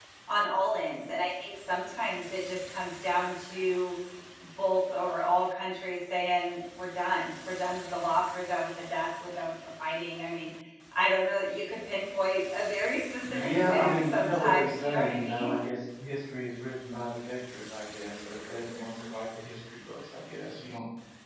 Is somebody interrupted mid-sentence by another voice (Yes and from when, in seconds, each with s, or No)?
Yes, from 13.2 s